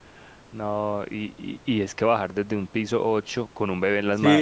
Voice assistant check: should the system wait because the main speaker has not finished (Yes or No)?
No